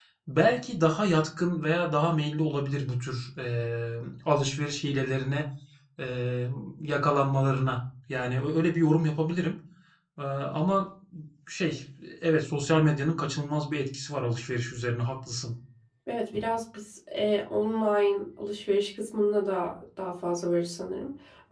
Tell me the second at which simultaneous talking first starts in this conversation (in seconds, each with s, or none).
none